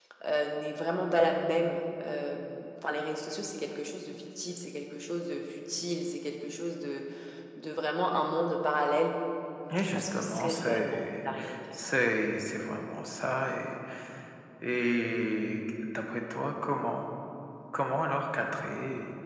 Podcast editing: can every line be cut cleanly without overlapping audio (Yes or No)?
No